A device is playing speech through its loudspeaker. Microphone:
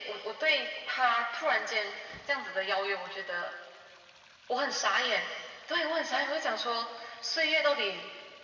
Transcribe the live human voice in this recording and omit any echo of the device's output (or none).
none